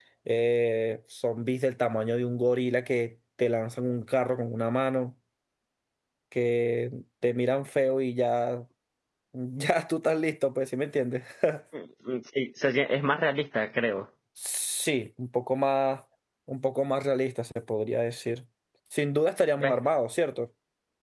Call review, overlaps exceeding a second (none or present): none